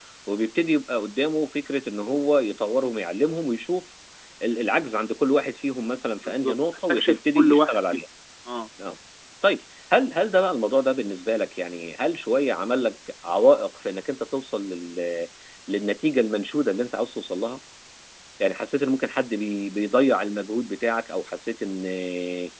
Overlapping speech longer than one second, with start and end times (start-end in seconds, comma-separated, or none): 6.2-8.0